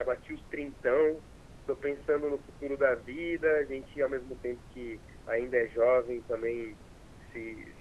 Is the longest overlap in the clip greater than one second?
No

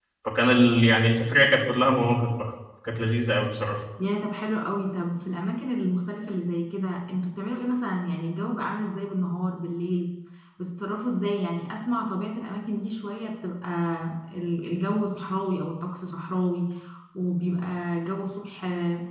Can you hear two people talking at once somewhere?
No

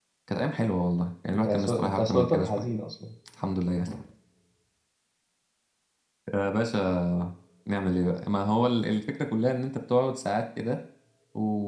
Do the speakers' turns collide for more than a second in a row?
Yes, from 1.4 s

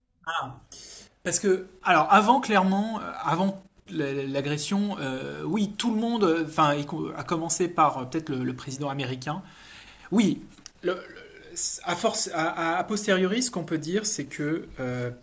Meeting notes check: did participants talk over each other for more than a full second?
No

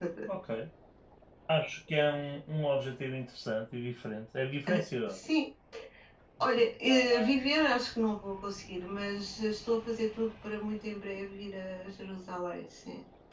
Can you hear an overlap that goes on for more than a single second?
No

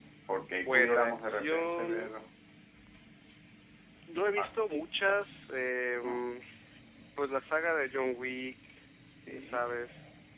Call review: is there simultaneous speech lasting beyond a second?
Yes, from 0.6 s

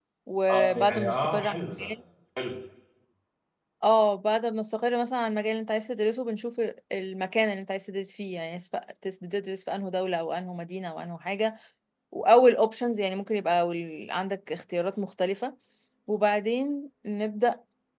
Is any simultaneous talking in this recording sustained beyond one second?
Yes, from 0.5 s

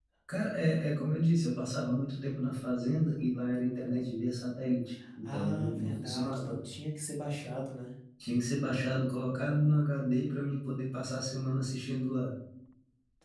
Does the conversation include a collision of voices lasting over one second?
Yes, from 5.0 s

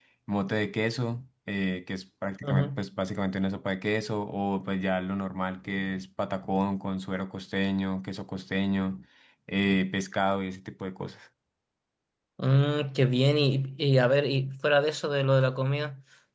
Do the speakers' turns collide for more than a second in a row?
No

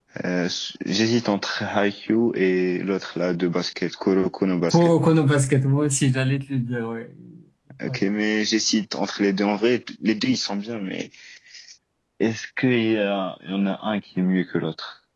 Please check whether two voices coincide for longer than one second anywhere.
No

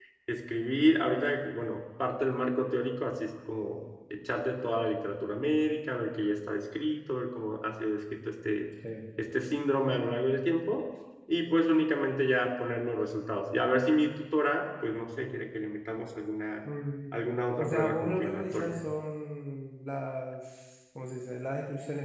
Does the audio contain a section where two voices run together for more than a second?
Yes, from 17.6 s

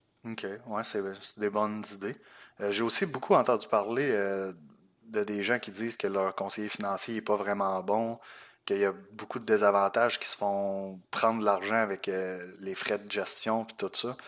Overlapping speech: No

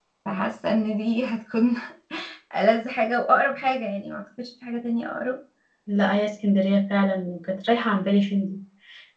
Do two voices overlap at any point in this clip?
No

